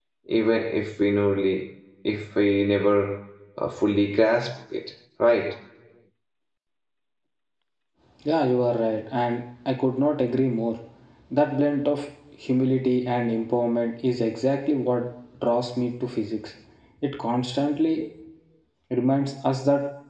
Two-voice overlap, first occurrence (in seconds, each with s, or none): none